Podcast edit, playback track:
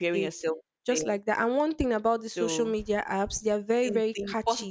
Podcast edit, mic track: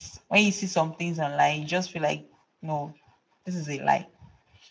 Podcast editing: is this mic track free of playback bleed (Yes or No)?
Yes